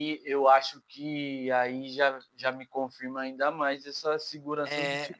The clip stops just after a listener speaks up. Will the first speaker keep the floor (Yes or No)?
Yes